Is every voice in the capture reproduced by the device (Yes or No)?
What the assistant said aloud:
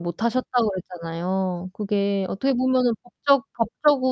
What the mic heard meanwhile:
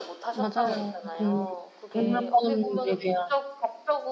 No